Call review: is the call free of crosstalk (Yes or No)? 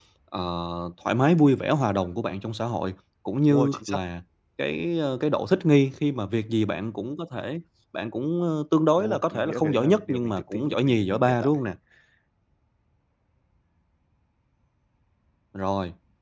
No